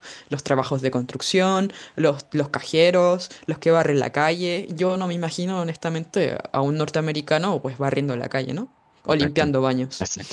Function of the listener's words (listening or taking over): taking over